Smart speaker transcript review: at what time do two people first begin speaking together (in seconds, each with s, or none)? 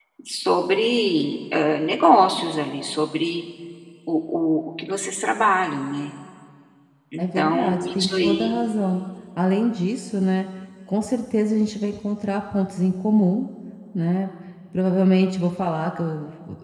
7.2 s